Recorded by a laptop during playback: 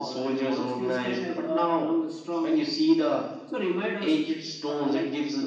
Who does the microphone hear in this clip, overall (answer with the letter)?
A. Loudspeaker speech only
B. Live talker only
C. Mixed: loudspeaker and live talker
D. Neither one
A